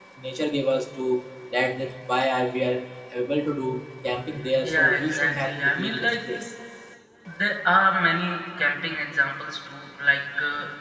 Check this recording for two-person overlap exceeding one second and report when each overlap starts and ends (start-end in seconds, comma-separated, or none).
4.6-6.2